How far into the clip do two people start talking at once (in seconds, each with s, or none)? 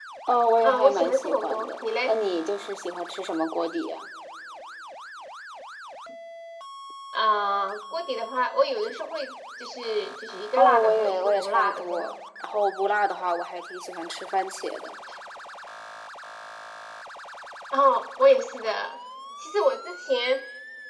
0.6 s